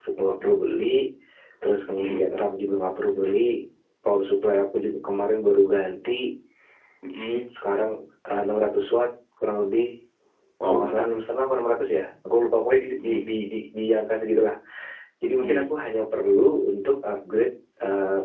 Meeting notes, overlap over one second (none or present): none